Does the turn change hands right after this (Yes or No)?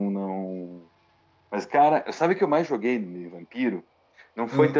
No